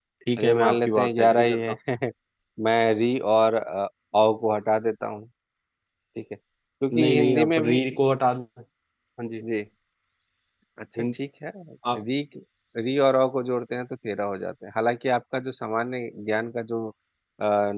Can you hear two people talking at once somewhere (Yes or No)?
Yes